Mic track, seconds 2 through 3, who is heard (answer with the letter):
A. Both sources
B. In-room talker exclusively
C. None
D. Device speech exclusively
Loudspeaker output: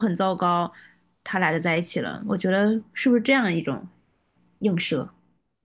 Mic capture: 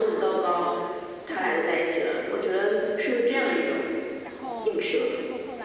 A